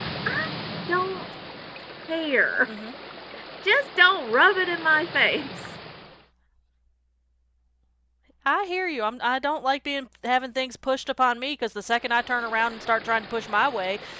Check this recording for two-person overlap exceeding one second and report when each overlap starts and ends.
none

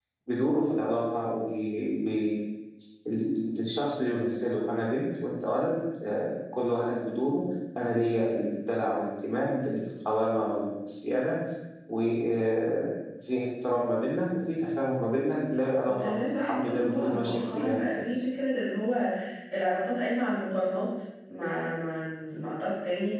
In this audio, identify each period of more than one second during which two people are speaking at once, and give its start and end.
15.8-18.3

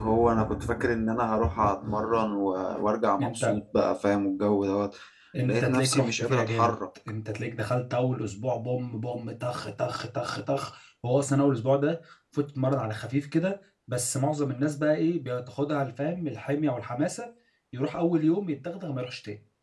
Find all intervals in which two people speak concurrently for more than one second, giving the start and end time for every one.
5.5-6.7

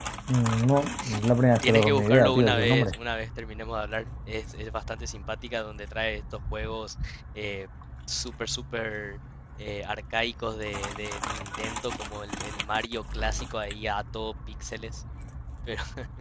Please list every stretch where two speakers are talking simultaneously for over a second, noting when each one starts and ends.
1.6-2.9

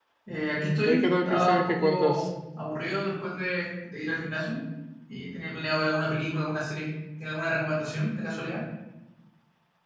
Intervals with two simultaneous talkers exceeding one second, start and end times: 0.8-2.3

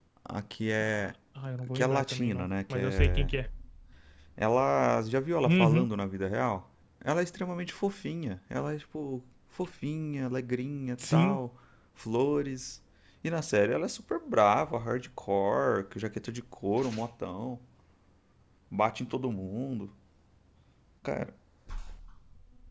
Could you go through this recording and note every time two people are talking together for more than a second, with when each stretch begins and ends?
1.7-3.3

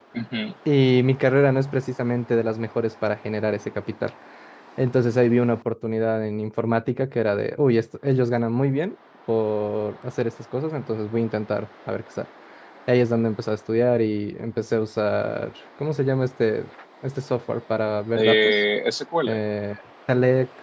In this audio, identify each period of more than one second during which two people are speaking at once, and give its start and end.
none

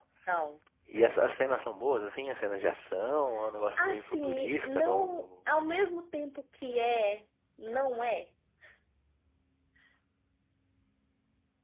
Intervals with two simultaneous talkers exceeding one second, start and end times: 3.8-5.3

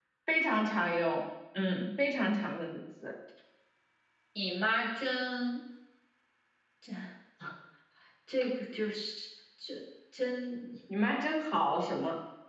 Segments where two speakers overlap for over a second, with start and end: none

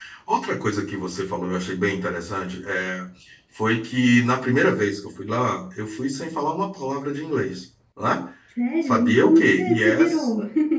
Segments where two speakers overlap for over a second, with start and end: 8.8-10.3

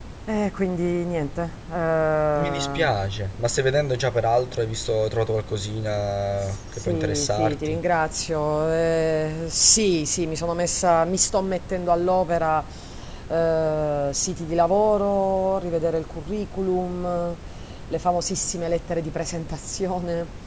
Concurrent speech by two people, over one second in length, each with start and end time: 6.4-7.8

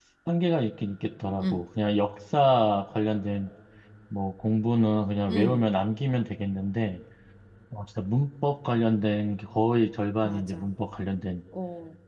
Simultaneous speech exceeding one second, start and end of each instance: none

